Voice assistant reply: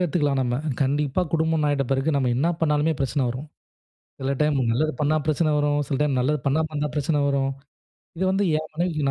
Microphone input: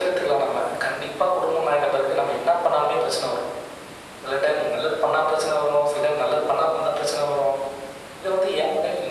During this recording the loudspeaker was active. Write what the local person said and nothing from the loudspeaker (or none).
none